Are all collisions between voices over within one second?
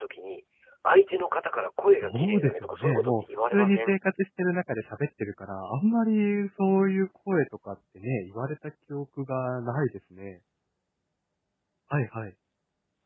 No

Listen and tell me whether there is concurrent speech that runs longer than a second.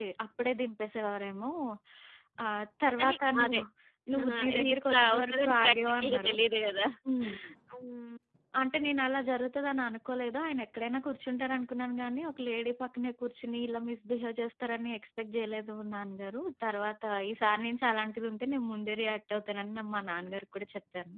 Yes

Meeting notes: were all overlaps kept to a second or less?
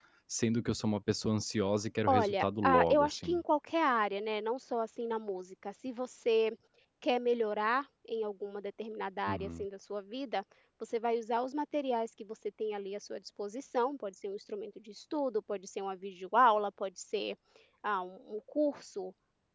No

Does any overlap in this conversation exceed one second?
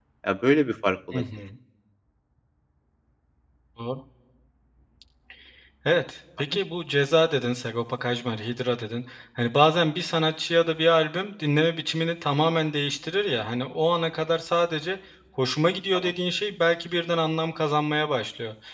No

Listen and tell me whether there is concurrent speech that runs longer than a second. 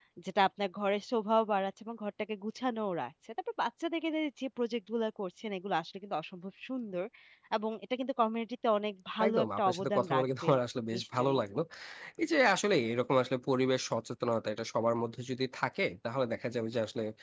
Yes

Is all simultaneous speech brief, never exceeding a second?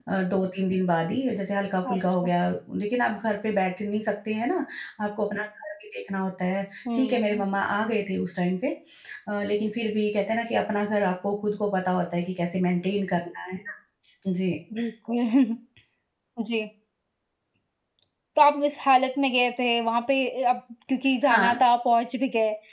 Yes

